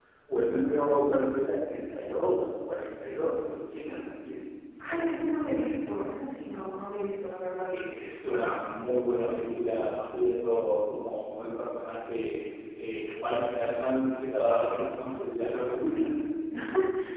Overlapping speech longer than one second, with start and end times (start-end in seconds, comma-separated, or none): none